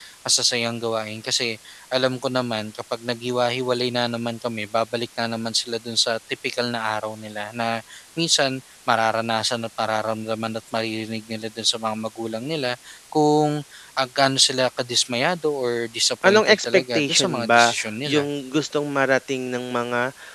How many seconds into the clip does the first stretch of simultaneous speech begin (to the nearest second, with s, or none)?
16 s